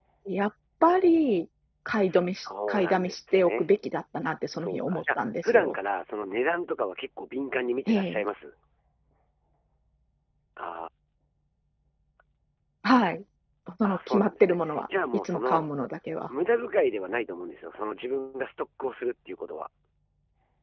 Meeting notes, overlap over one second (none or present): present